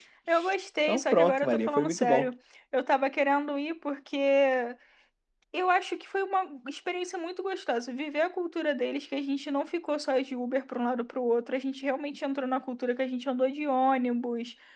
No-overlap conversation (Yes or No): No